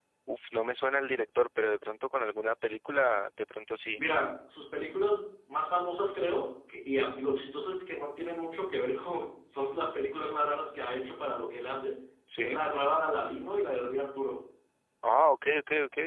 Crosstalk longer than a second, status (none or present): none